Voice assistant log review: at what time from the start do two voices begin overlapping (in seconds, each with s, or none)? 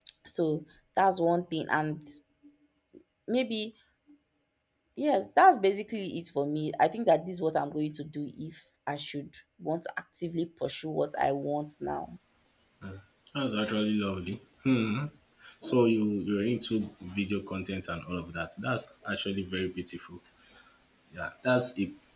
none